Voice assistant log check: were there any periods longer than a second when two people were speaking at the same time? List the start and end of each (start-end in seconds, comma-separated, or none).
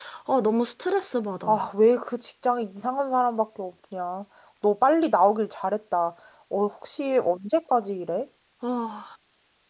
none